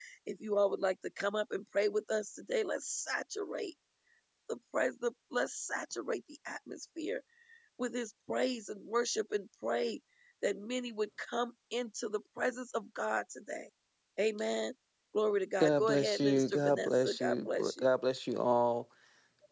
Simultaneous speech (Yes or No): Yes